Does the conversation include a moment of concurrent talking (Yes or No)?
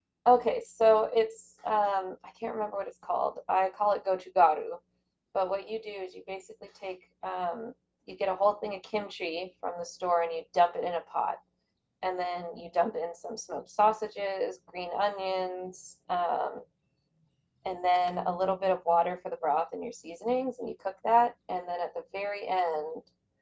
No